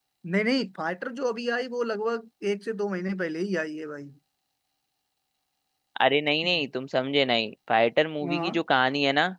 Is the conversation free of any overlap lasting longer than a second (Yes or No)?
Yes